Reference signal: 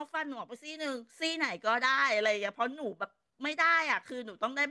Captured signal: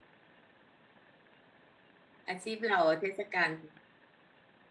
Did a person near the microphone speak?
Yes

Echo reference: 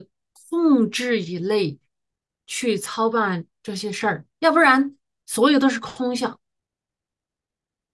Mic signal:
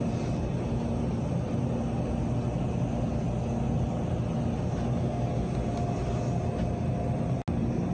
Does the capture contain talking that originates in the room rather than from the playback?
No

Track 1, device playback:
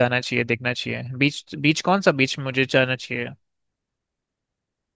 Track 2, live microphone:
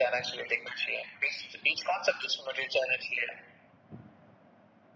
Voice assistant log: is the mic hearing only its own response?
Yes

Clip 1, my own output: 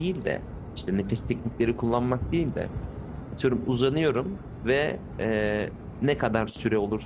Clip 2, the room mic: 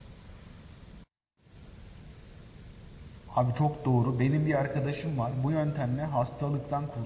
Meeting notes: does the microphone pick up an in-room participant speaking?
Yes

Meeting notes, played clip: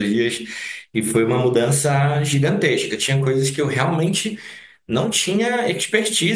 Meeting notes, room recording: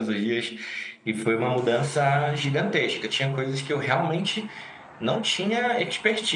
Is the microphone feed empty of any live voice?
Yes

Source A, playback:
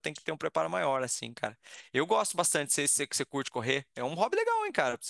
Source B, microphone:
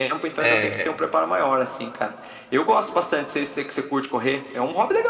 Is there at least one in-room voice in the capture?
Yes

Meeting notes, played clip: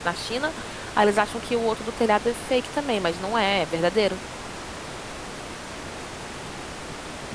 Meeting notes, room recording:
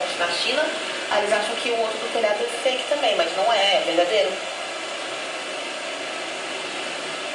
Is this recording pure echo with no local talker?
Yes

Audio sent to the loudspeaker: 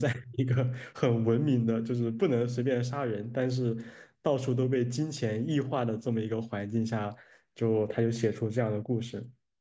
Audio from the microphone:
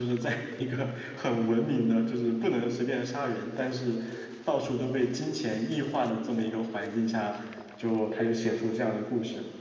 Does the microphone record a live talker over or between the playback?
No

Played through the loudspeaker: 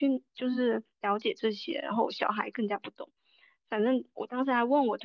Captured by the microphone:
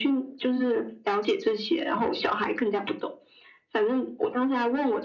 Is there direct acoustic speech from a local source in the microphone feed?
No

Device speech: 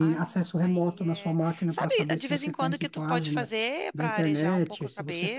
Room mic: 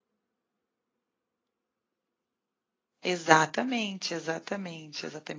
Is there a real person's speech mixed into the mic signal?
Yes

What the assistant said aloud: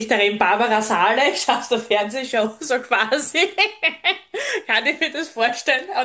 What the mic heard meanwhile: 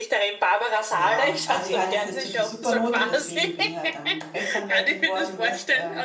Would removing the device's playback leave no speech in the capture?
No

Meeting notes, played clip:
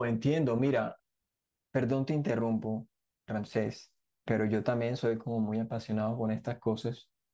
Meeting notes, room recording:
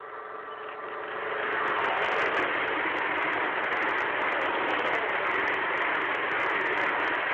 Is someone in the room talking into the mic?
No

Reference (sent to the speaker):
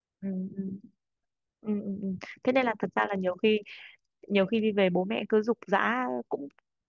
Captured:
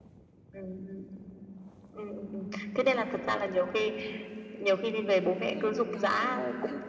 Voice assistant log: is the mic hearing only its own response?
No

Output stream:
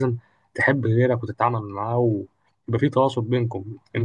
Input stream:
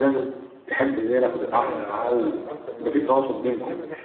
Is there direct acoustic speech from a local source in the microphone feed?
Yes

